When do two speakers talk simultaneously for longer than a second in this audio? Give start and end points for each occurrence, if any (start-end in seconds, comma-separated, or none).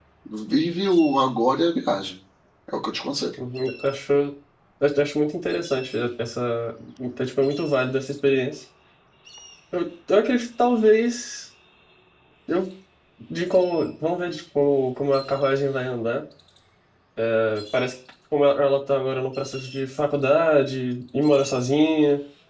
none